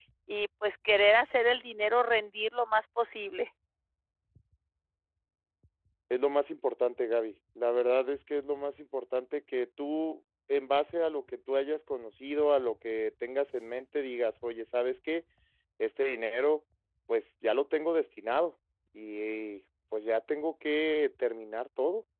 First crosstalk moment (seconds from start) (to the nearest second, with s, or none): none